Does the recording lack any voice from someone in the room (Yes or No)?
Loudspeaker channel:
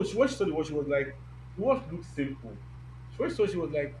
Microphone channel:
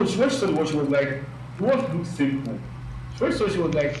Yes